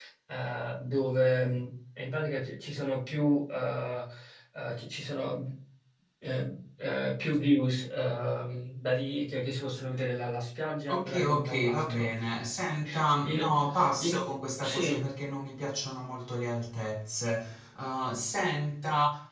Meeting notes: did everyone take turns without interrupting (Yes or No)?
No